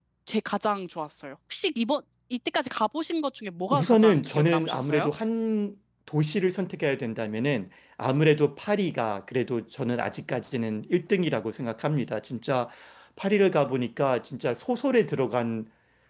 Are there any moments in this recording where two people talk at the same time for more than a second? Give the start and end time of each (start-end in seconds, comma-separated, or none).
3.7-5.1